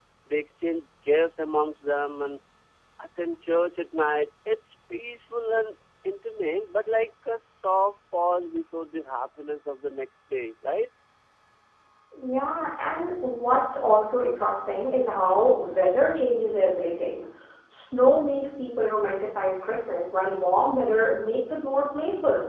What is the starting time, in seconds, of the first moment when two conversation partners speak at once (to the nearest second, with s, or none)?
none